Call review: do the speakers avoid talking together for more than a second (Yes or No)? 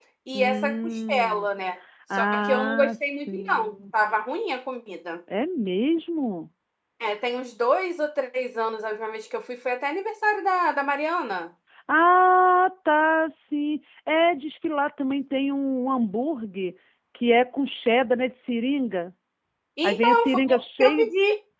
No